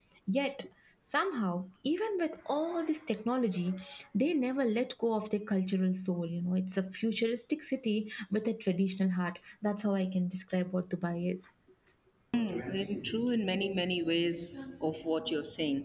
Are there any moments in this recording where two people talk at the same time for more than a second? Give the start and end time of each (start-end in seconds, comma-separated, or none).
none